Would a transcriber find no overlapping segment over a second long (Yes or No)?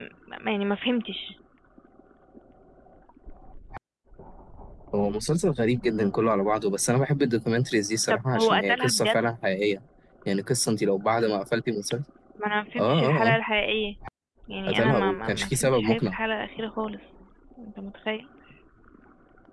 No